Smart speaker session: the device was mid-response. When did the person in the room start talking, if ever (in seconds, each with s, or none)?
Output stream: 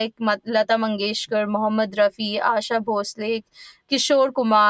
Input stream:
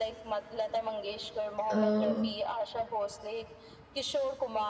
1.7 s